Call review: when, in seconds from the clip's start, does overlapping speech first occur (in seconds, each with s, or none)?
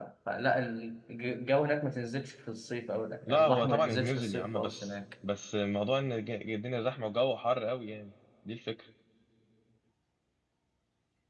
3.3 s